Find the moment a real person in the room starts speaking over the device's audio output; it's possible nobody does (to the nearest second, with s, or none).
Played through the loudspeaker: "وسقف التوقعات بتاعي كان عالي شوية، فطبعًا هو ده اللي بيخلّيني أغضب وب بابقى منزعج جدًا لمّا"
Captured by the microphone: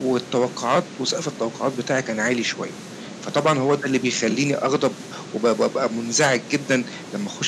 none